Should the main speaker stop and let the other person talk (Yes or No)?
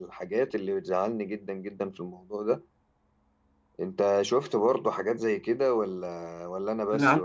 Yes